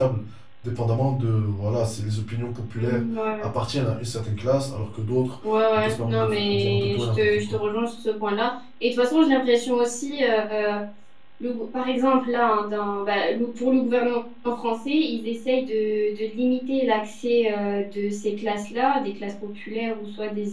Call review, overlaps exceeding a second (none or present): present